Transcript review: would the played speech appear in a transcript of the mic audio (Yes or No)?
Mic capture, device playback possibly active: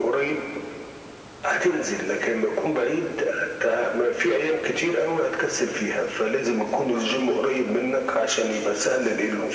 Yes